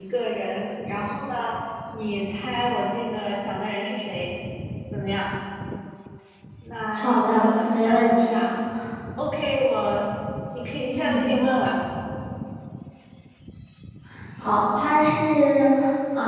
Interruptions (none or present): present